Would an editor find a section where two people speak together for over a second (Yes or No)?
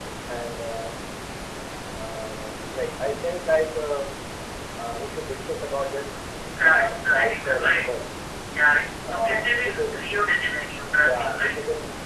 Yes